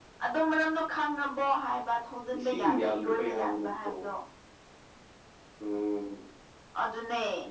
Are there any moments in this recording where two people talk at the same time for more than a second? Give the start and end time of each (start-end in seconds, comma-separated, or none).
2.4-3.9